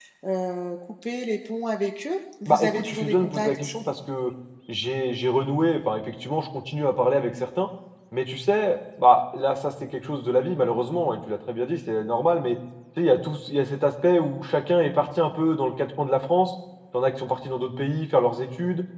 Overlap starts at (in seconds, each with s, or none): 2.5 s